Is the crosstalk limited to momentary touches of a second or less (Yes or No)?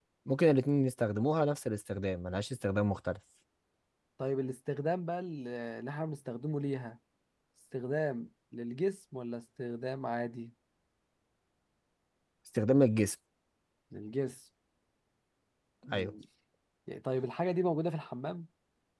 Yes